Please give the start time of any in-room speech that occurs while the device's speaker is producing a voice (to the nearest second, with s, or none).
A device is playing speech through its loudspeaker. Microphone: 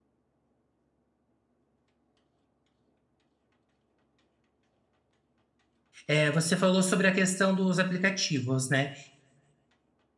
6 s